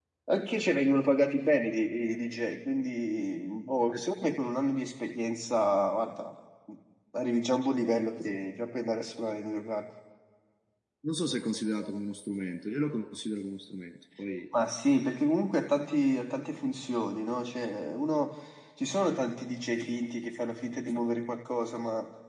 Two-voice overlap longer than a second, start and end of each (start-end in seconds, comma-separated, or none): none